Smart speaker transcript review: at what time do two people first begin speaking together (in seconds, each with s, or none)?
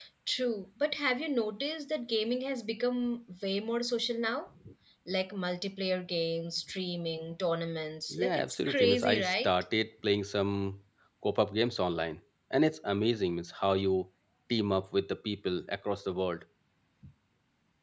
8.1 s